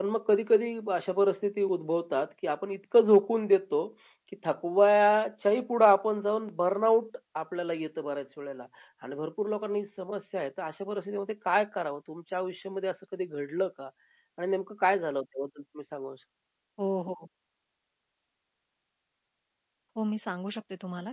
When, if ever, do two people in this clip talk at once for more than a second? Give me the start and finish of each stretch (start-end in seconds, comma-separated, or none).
none